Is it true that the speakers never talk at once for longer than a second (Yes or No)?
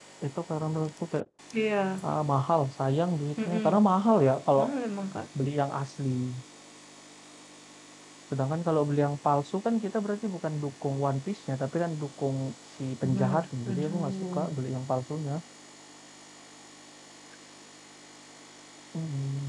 No